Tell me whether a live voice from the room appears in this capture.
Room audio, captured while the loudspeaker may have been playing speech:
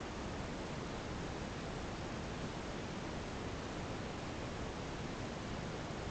No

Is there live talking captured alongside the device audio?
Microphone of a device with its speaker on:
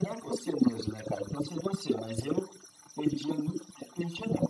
No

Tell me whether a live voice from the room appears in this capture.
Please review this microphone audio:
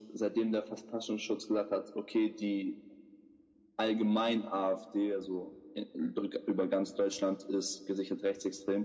No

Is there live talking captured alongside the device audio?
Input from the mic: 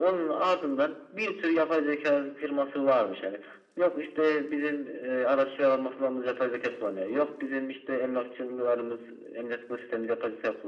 No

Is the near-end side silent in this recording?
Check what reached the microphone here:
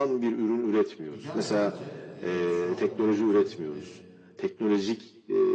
No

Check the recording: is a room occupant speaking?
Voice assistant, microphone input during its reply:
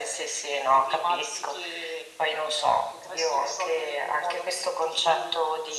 No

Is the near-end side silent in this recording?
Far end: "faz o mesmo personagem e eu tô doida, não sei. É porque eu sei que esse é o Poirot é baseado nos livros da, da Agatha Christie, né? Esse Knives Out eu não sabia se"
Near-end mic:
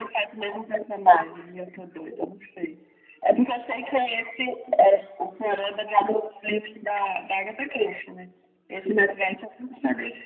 Yes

